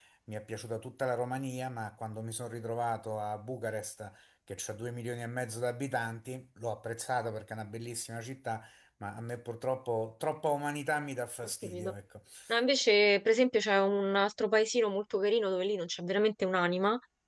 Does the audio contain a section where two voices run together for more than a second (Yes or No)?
No